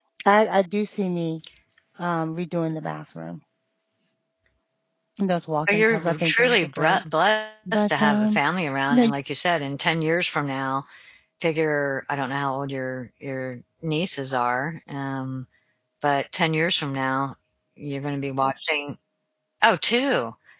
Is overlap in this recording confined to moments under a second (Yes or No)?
No